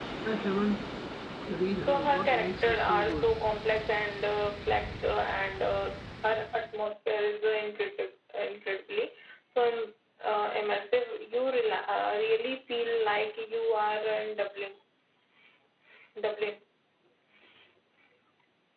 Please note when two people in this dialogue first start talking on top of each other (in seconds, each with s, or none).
1.7 s